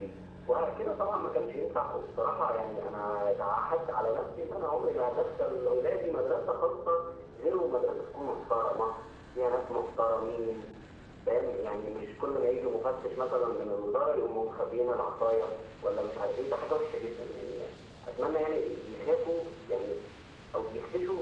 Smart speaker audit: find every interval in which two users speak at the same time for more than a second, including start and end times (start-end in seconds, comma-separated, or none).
none